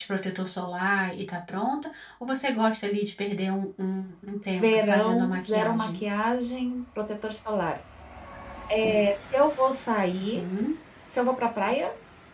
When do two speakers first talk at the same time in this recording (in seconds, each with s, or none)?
4.6 s